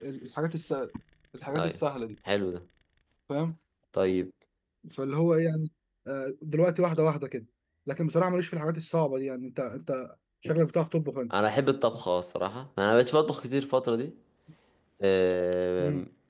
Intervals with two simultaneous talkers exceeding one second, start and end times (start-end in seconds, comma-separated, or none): none